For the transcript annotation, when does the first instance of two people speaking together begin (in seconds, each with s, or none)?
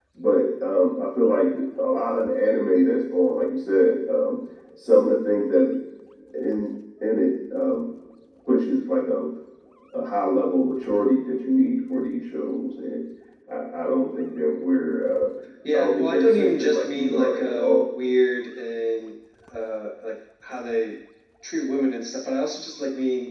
15.7 s